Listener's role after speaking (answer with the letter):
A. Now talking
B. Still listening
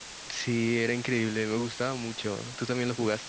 A